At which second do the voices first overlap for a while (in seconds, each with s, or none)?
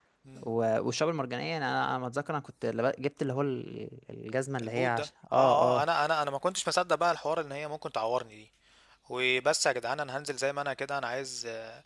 4.6 s